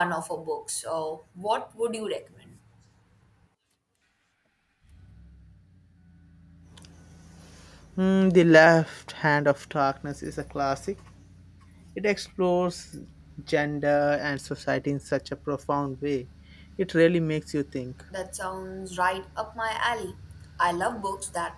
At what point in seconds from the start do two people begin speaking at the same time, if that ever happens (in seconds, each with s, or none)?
none